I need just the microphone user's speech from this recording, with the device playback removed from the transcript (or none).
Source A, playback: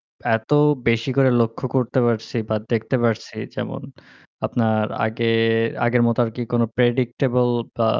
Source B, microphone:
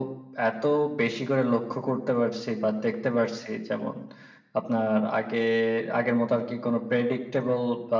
none